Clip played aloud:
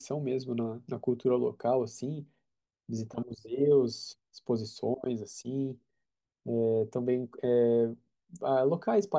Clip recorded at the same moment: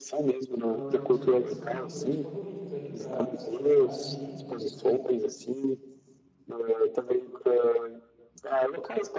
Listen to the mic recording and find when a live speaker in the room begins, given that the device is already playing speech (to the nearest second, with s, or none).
1 s